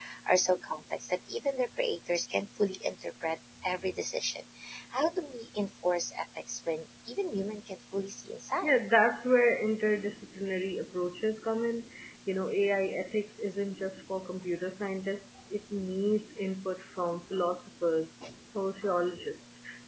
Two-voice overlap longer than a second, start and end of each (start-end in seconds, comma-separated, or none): none